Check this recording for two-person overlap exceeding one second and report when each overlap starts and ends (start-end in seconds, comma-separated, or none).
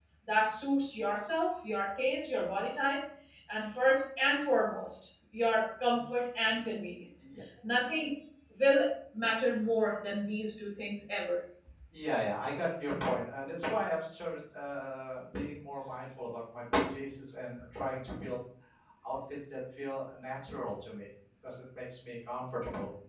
none